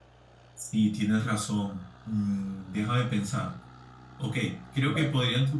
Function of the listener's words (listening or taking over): listening